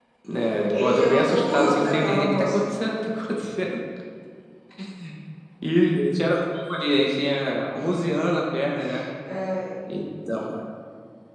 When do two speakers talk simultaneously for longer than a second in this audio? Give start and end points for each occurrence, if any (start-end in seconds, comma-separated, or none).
0.7-2.6